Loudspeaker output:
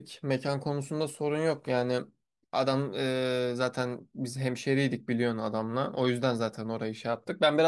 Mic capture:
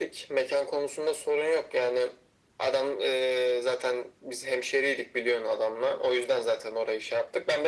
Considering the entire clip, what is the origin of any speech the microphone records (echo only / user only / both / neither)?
echo only